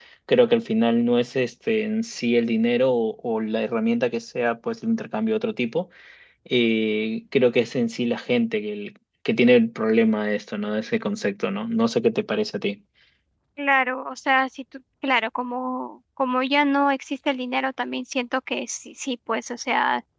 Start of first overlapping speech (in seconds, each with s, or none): none